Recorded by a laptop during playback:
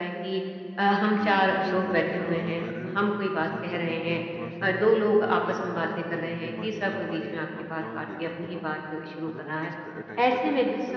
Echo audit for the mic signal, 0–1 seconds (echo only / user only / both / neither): echo only